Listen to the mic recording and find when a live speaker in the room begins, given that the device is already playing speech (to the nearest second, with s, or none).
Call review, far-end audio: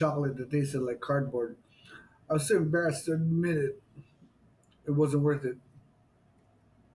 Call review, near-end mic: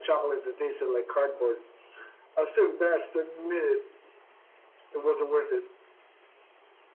none